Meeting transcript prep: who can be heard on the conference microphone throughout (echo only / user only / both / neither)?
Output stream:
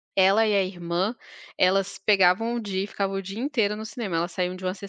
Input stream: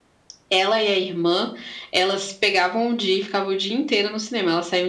echo only